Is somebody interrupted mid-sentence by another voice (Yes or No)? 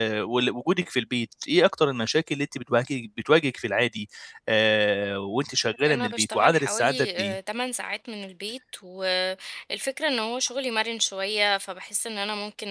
Yes